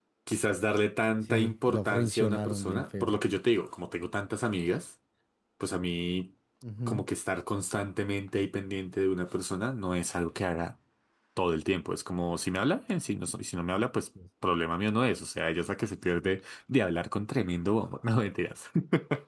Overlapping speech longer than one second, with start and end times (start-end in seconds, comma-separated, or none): 1.3-3.1